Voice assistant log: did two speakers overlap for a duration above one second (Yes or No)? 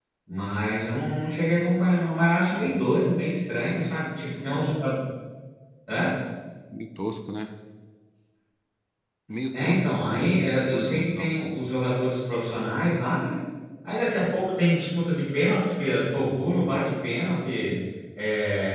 Yes